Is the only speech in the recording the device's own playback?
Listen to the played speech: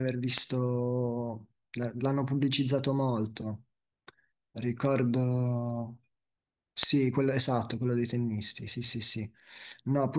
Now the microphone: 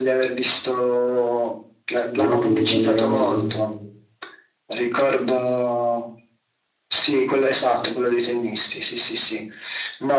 No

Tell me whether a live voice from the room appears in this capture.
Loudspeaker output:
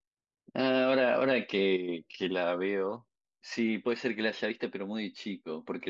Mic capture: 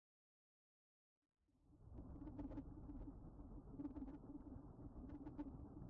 No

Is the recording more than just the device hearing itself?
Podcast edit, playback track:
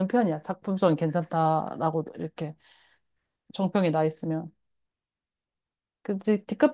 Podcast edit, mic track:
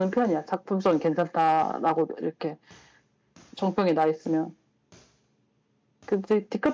No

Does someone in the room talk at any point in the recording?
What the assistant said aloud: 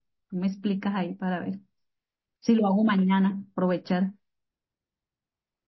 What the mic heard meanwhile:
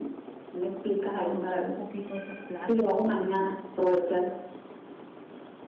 Yes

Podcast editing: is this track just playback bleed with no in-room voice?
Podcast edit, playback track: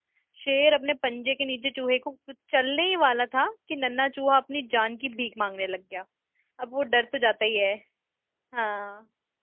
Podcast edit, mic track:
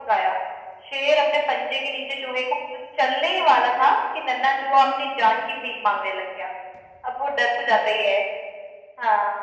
Yes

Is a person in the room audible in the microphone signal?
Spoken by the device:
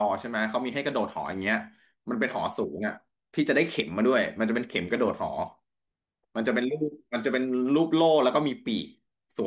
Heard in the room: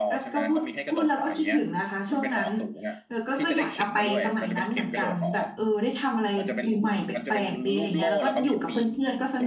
Yes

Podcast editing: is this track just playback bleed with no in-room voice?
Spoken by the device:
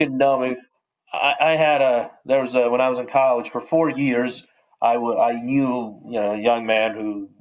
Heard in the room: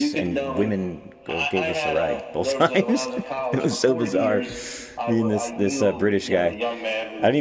No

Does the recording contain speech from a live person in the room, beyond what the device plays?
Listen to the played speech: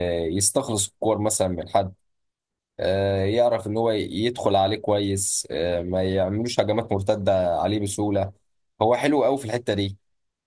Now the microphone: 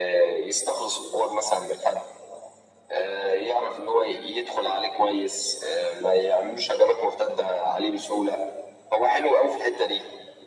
No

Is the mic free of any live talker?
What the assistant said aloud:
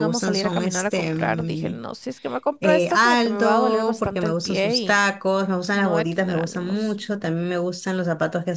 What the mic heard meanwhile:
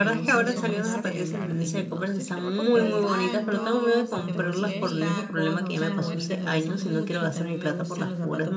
No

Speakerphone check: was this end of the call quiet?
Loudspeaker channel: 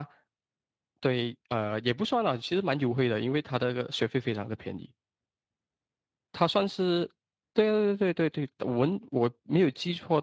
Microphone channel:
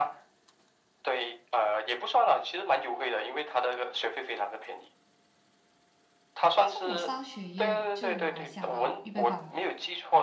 No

